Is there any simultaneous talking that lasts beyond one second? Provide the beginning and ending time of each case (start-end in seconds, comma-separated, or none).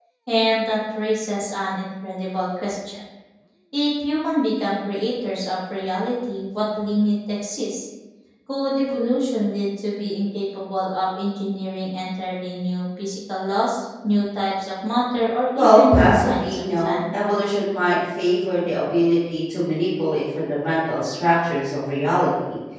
15.6-17.1